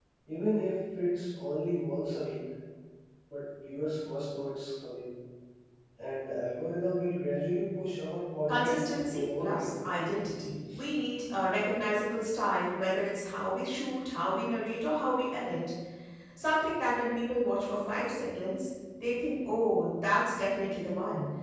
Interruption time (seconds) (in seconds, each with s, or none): 8.5 s